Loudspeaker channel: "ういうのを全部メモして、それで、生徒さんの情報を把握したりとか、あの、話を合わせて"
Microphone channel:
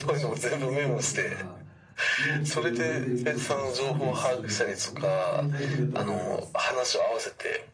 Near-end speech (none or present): present